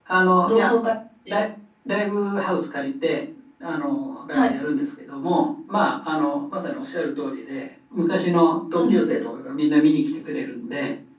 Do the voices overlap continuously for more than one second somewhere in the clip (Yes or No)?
No